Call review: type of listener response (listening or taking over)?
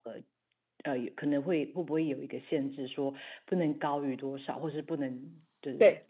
taking over